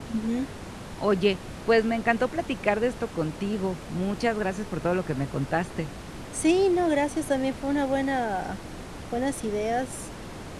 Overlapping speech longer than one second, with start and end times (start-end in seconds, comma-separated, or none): none